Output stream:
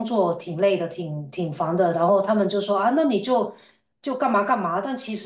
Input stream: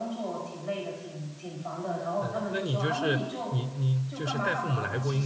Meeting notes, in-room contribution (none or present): present